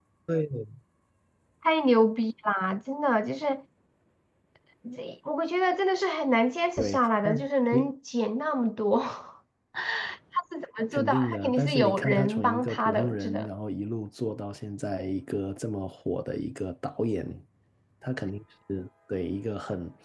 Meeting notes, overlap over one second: present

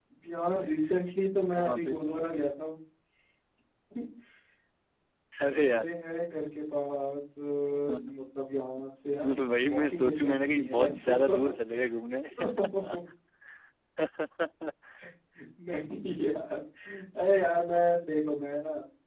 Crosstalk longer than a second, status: present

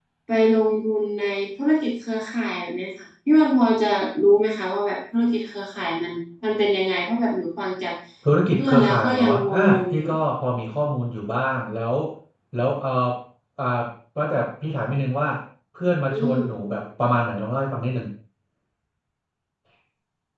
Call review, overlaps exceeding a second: present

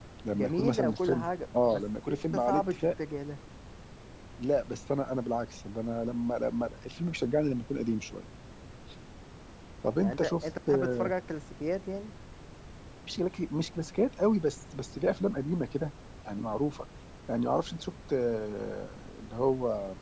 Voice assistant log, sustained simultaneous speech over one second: present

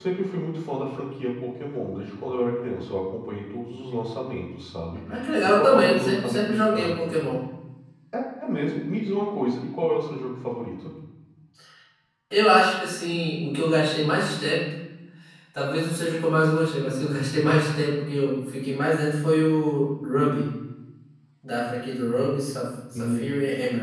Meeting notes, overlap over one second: present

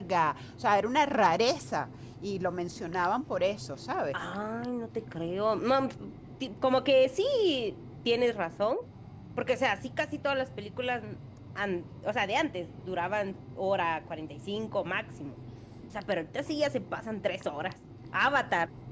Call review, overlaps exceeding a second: none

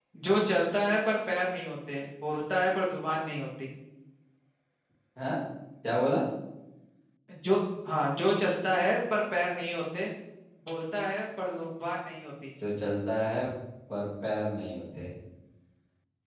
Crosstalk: none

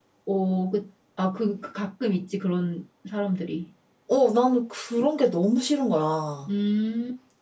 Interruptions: none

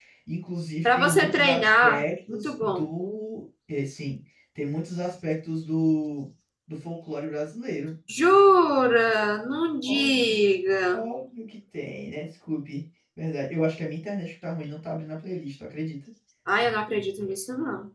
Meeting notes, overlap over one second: present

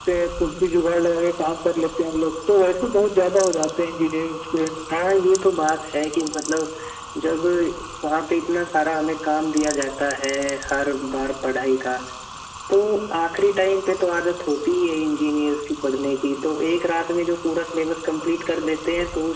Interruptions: none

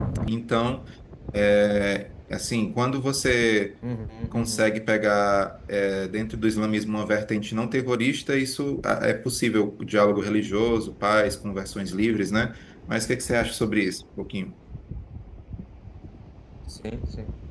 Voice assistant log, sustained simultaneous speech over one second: none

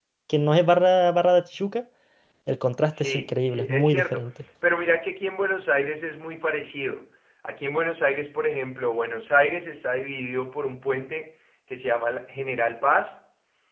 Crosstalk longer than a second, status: present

